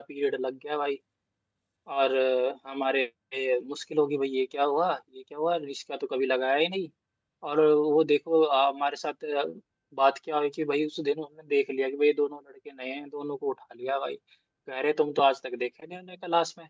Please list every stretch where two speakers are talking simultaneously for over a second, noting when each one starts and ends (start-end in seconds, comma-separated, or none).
none